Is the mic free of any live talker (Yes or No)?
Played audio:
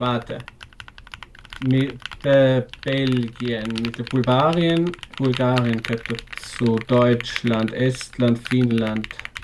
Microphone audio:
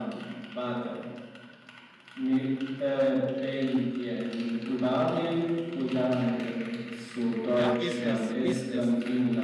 No